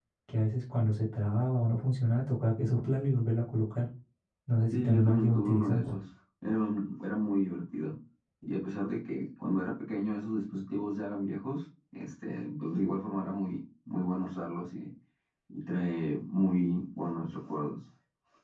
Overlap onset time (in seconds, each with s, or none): 4.7 s